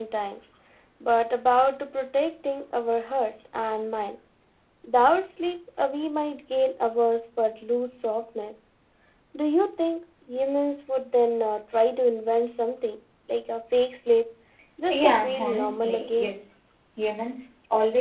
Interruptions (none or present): present